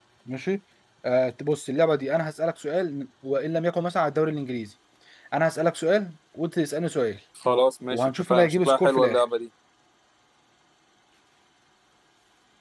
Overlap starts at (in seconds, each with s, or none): 7.9 s